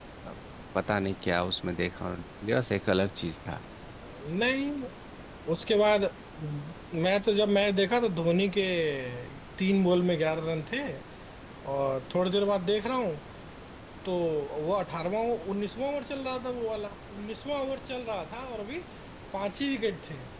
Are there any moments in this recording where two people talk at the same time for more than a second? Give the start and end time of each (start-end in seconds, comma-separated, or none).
none